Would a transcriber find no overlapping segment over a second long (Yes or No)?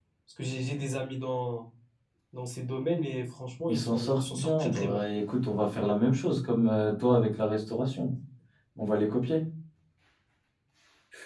No